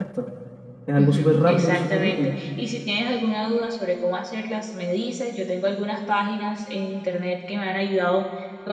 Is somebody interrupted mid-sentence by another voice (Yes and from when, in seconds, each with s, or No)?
Yes, from 1.0 s